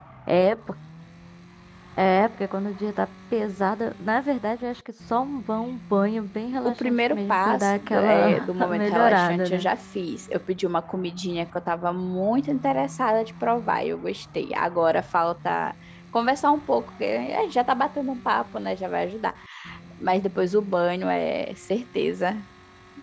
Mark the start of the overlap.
6.7 s

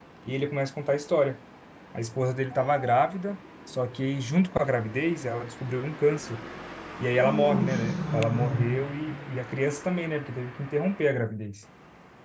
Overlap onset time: 7.1 s

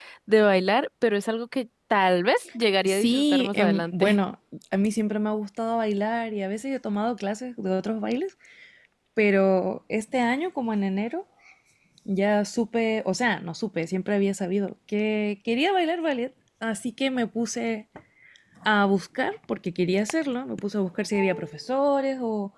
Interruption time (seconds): 2.8 s

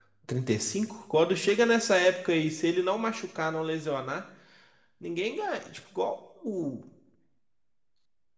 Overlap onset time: none

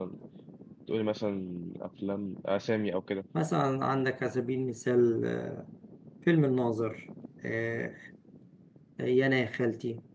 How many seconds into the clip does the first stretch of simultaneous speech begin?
none

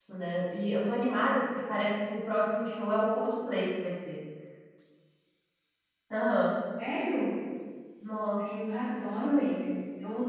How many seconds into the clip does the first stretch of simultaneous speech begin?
none

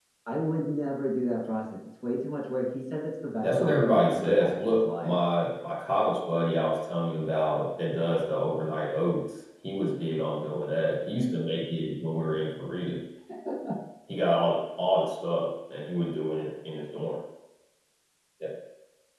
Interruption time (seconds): 3.4 s

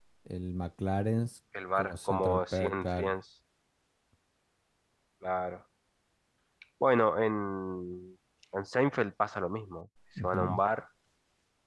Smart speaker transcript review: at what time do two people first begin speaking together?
1.8 s

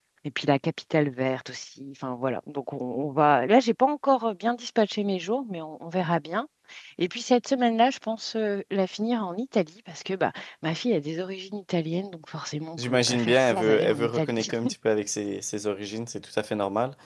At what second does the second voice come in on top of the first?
12.8 s

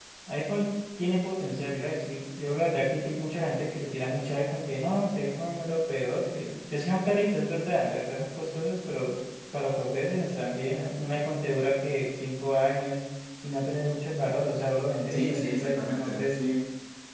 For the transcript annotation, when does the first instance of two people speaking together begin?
15.1 s

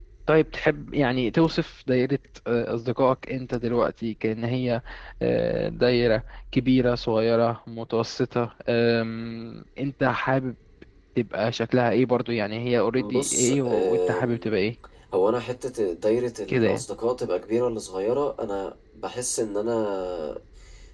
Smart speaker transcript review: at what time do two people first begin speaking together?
13.0 s

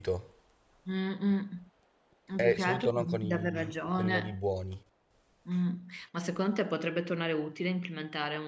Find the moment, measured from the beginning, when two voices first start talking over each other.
2.4 s

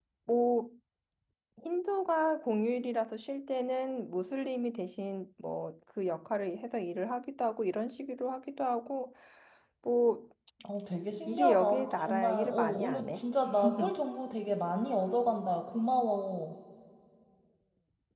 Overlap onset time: 11.3 s

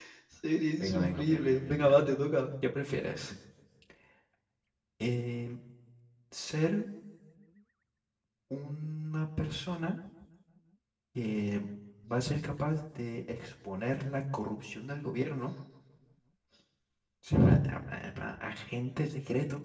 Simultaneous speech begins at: 0.8 s

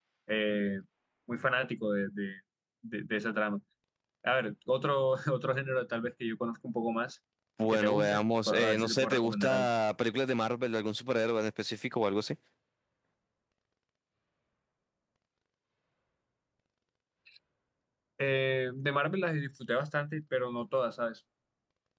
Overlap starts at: 7.7 s

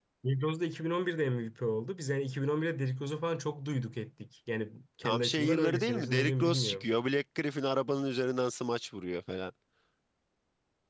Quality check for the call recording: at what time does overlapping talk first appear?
5.0 s

